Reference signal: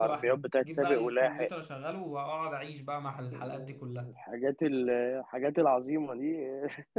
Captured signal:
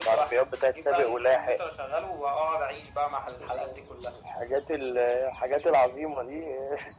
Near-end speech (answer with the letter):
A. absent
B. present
A